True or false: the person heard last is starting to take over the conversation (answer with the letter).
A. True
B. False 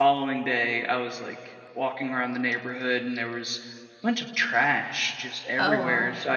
B